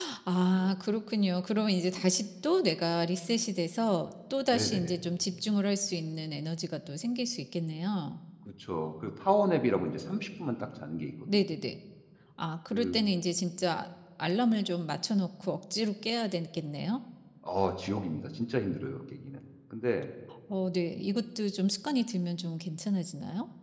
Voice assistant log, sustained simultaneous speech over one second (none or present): none